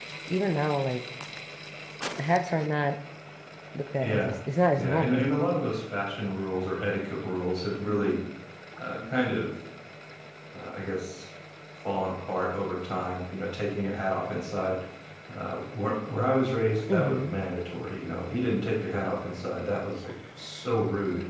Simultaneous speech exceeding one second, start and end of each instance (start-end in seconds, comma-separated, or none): none